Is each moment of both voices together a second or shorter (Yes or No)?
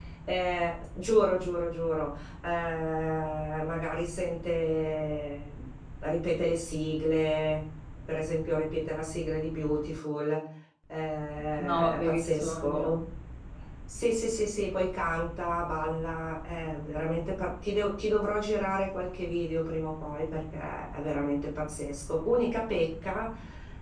No